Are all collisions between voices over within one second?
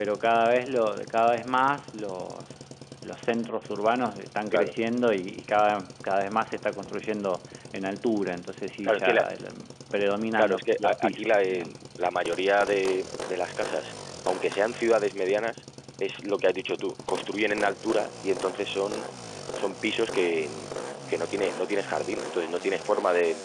No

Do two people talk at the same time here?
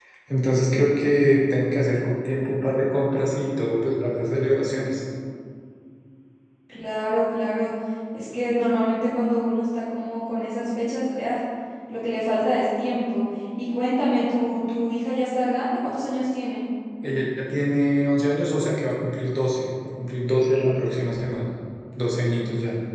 No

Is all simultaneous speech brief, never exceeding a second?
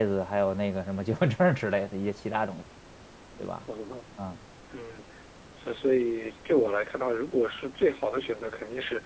Yes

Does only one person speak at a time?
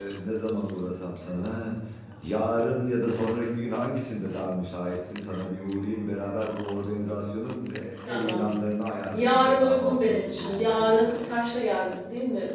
No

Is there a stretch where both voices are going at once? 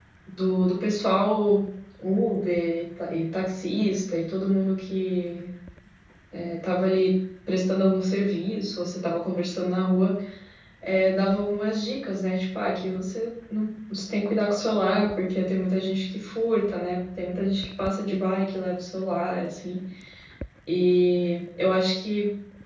No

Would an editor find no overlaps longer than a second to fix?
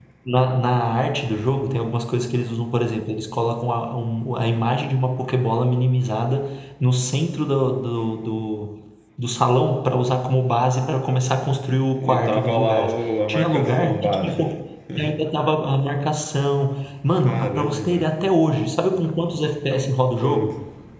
No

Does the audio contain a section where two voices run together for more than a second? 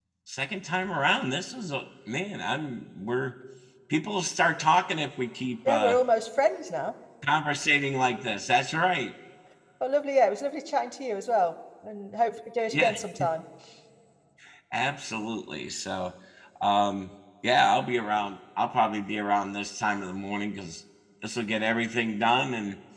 No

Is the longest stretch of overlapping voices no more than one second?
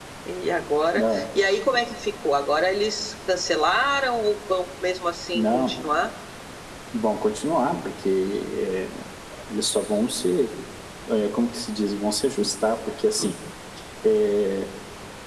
Yes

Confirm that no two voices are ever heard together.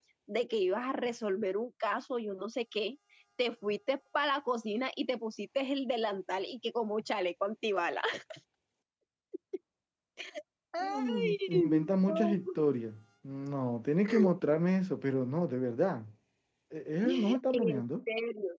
No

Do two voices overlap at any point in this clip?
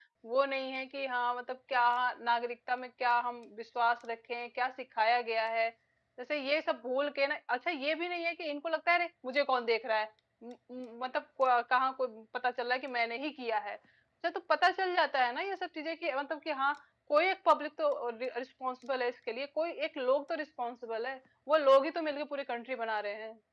No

